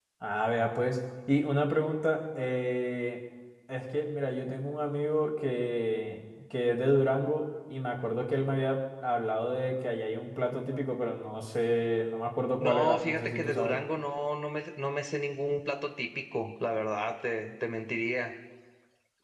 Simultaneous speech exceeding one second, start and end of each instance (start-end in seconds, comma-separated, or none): 12.6-13.8